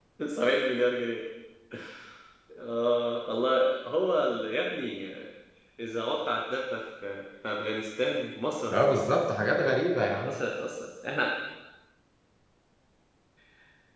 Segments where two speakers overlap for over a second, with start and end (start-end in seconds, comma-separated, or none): none